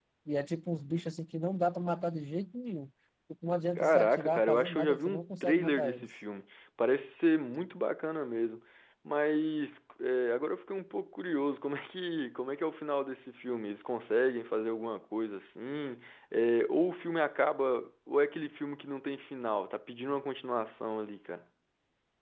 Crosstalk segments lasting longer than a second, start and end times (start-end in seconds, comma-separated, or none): 3.8-6.1